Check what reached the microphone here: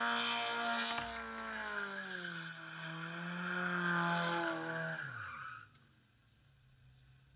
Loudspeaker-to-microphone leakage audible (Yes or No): No